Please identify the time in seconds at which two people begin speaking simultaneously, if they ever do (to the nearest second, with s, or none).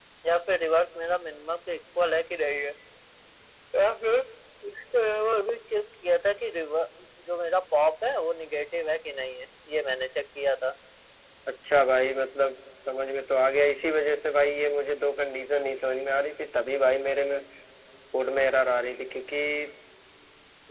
none